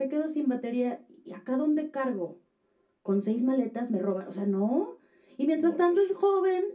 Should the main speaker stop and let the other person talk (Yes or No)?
No